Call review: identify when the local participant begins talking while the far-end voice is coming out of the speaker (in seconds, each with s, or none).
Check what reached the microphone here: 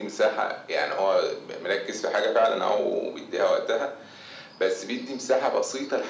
none